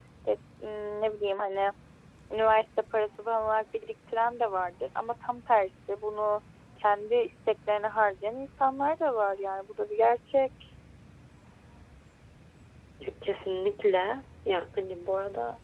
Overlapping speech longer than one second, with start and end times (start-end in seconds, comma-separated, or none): none